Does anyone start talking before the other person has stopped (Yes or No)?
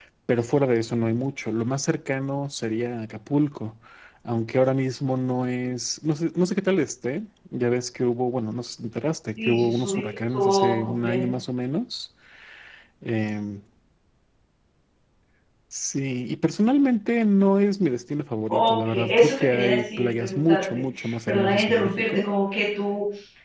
Yes